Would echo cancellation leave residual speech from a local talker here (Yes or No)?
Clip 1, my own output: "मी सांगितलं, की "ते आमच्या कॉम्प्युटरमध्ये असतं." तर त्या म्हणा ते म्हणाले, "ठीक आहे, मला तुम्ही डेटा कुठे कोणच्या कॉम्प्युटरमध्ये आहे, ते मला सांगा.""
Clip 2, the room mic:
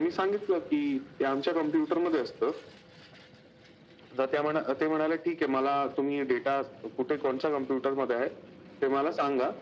No